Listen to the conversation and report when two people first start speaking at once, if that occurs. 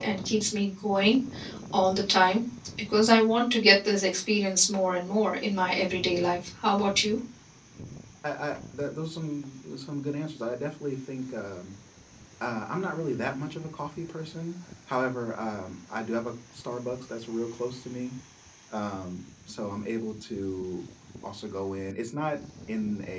none

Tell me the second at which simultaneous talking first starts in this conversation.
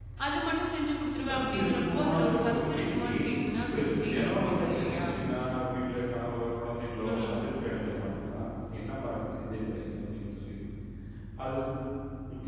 1.3 s

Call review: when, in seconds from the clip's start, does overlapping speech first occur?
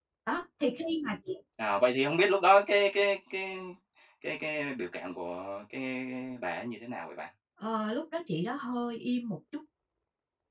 none

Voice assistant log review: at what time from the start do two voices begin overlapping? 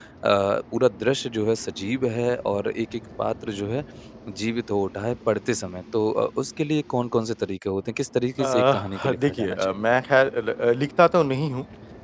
8.4 s

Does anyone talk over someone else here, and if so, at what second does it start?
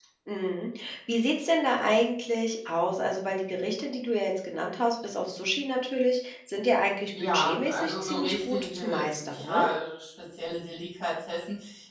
7.1 s

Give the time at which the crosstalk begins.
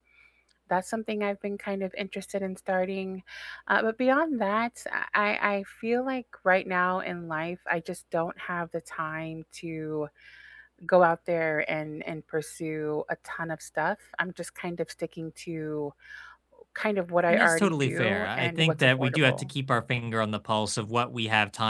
17.3 s

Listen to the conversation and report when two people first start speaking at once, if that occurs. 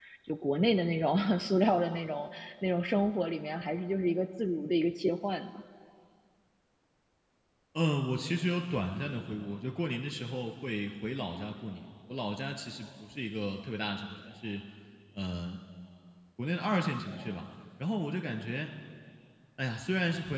none

